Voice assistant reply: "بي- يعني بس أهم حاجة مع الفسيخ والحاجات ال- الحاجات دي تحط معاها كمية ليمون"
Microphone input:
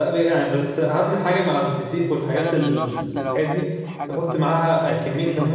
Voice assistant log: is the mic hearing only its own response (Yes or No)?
No